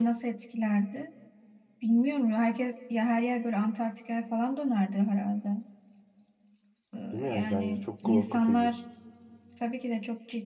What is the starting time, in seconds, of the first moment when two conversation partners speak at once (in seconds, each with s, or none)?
7.1 s